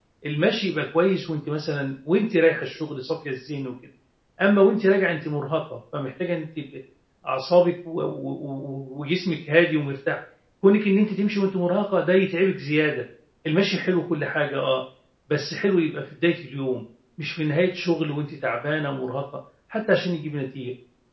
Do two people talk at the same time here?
No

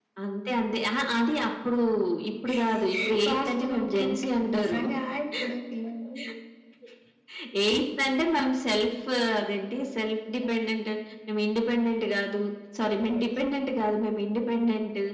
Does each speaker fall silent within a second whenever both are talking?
No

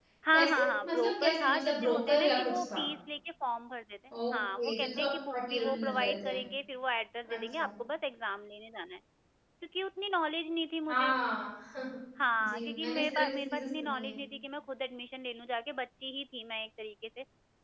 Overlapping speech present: Yes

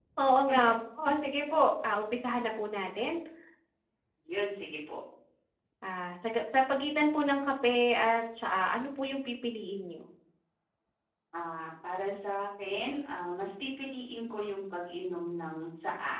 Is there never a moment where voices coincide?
Yes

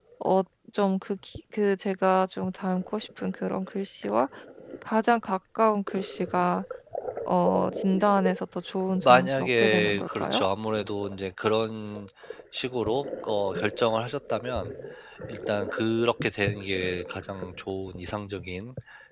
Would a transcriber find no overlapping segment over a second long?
No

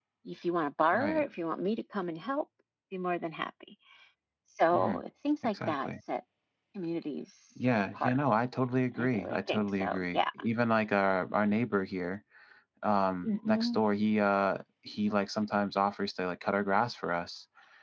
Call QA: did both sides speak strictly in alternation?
No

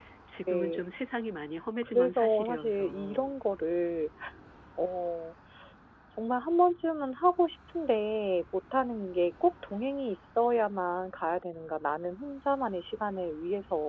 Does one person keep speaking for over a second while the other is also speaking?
Yes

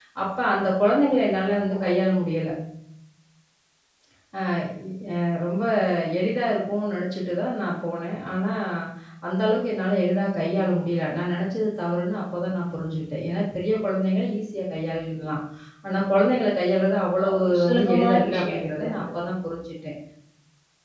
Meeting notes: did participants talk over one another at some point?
Yes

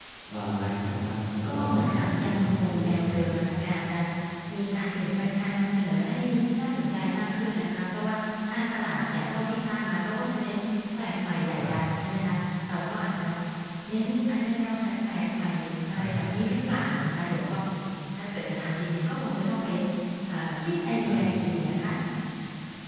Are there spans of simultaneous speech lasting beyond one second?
Yes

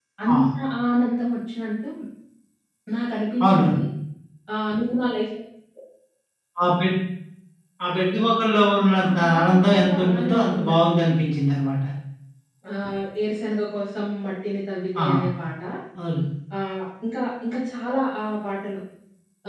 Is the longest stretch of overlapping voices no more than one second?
No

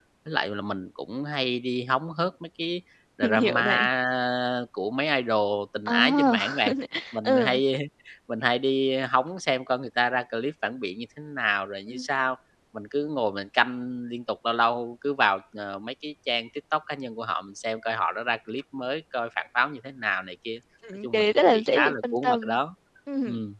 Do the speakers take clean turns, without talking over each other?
No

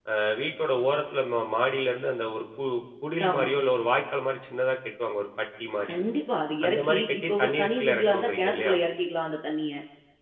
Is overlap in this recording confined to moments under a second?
No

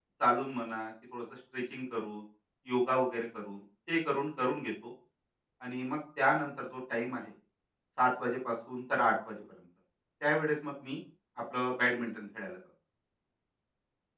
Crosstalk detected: No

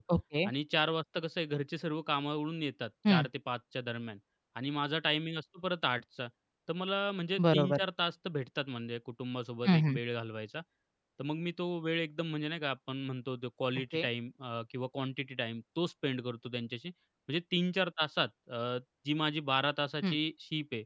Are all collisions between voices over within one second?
Yes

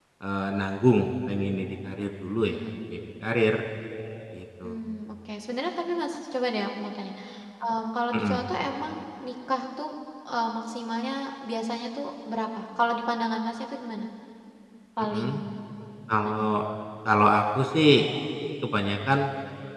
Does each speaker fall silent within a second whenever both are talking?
Yes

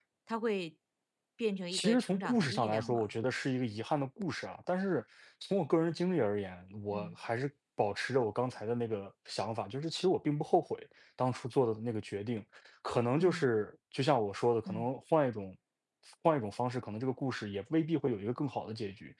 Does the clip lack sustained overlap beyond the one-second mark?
No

